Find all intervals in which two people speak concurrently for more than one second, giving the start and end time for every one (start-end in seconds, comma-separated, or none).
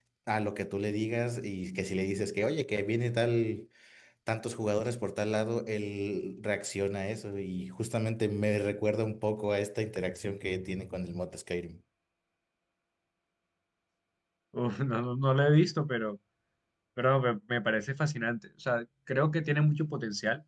none